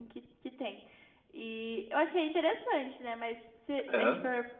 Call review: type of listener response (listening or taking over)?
listening